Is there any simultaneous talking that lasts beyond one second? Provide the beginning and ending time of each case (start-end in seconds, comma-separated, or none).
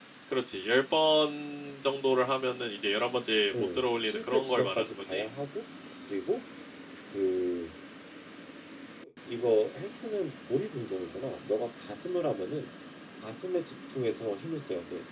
3.5-5.2